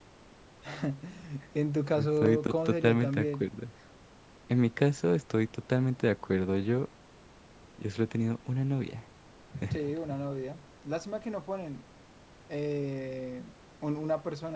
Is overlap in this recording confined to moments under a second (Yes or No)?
No